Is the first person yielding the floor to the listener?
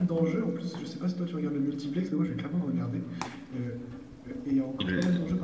No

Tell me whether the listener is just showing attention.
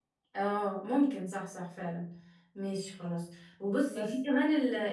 Yes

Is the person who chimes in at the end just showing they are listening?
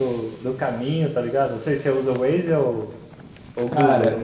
No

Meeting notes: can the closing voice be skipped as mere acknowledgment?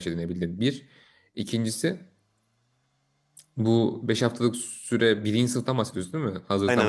No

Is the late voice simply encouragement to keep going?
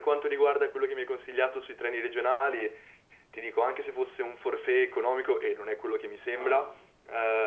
Yes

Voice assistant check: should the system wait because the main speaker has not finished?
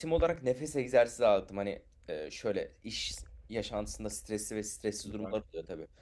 Yes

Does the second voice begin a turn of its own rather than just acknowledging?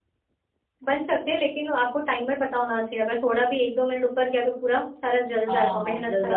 Yes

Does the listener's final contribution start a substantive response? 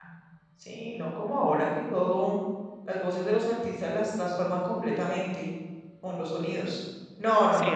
Yes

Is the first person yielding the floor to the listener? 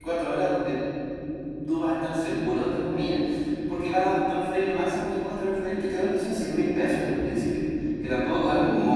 Yes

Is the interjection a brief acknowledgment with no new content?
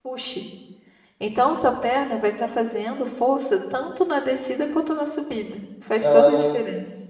No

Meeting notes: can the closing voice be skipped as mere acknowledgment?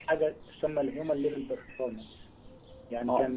Yes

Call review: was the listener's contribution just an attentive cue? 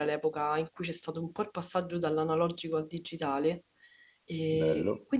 Yes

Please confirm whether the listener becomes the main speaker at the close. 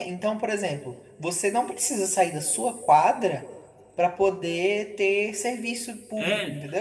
Yes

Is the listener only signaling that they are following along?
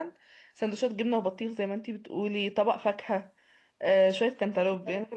Yes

